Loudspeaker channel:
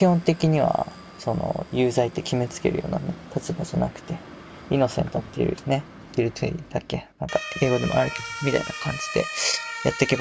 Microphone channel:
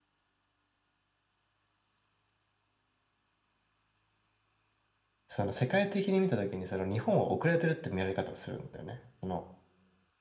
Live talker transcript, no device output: その、世界的に見たときに、その、日本は遅れてるって見られ方をするんだよね。その、

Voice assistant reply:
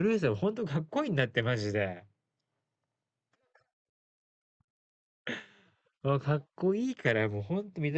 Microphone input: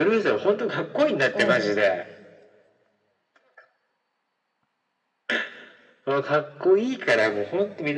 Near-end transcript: を、

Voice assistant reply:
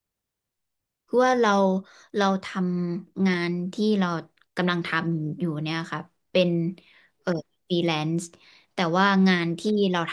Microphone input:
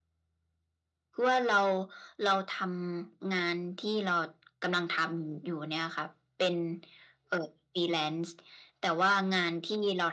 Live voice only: none

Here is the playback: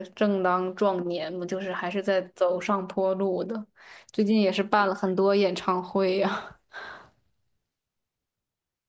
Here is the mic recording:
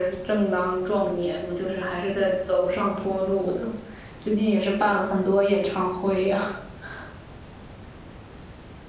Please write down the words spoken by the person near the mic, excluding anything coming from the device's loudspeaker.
none

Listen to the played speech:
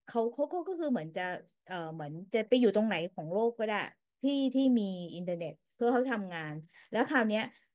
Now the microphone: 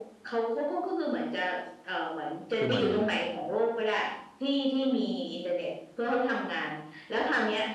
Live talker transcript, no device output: คือเหมือน

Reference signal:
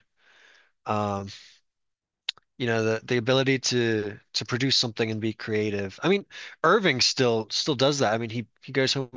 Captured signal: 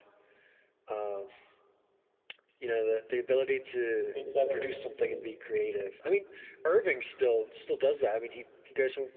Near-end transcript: It's um interesting.

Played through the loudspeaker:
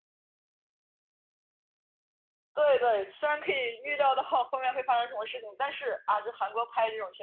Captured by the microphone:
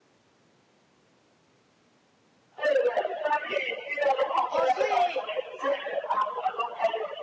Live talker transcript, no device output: 哦，所以剪，

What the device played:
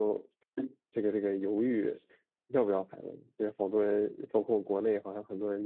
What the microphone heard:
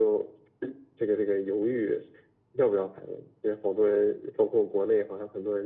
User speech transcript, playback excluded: none

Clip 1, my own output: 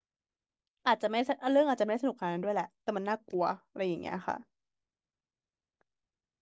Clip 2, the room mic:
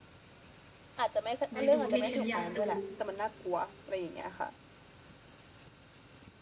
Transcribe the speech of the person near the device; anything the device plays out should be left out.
ได้ดูที่ฉันอยากดู

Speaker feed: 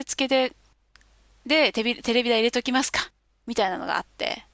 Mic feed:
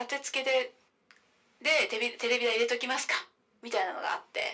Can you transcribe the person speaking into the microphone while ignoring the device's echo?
none

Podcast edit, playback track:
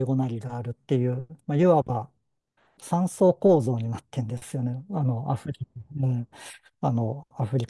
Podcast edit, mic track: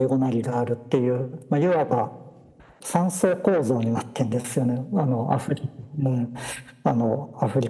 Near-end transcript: none

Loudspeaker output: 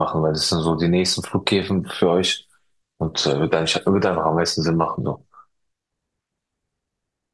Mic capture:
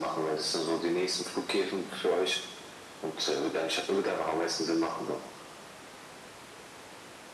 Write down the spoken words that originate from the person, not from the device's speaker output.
none

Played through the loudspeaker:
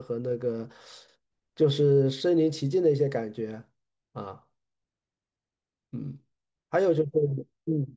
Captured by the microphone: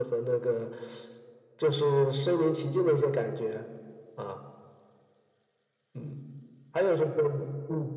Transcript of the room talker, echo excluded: none

